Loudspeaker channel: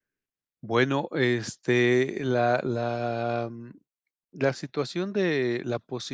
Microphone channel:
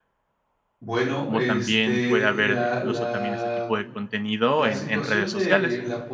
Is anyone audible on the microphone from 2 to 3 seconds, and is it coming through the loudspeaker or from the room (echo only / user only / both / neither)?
both